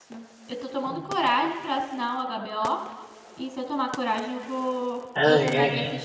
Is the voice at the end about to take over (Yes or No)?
Yes